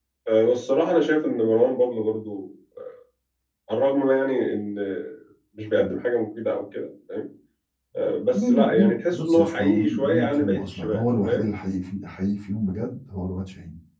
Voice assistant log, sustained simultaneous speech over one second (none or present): present